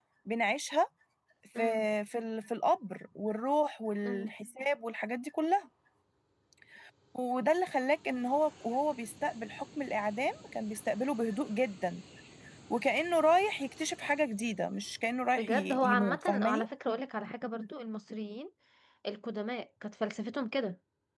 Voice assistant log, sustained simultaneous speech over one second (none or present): present